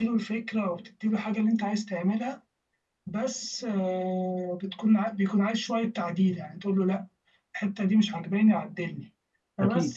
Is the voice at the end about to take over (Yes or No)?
No